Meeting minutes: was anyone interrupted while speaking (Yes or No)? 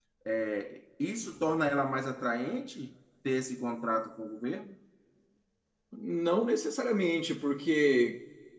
No